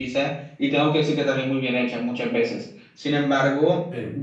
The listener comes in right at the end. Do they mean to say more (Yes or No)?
No